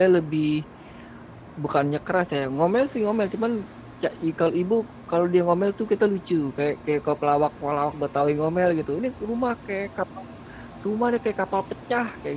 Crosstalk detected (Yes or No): No